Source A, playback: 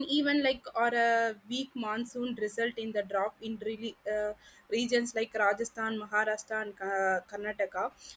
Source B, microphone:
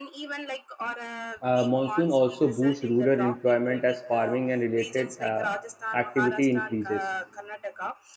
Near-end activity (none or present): present